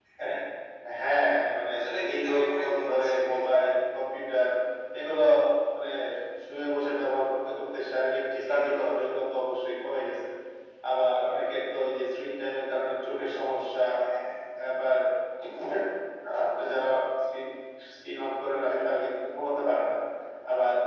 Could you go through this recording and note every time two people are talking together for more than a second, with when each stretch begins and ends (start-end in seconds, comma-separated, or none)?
1.7-3.2